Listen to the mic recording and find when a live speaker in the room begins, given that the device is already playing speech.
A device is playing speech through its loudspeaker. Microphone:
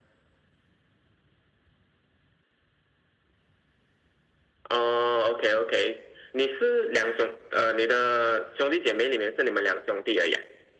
none

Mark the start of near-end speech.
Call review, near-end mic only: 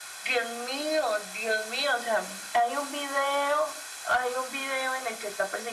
none

